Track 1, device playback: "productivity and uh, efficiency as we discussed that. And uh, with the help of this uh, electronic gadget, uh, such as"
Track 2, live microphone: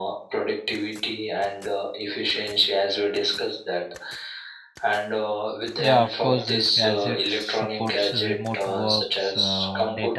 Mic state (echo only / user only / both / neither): both